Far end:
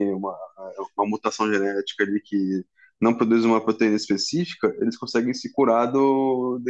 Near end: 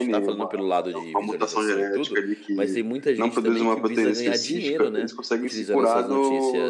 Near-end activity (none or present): present